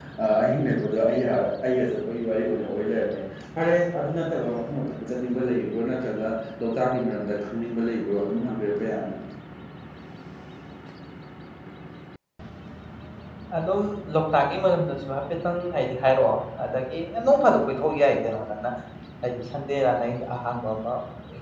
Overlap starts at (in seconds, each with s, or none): none